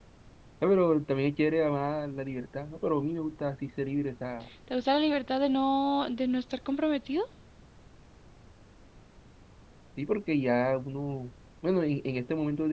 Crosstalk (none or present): none